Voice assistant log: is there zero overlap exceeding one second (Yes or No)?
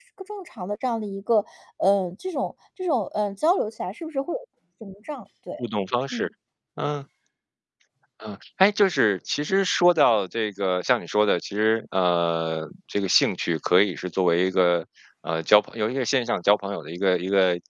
Yes